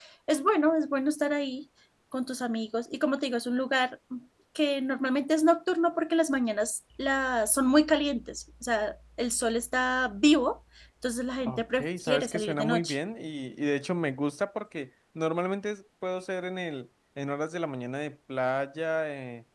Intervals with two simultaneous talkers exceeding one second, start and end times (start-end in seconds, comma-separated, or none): 11.4-13.0